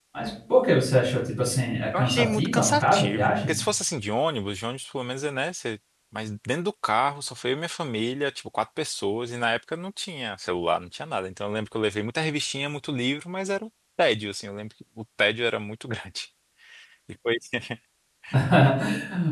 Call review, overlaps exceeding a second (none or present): present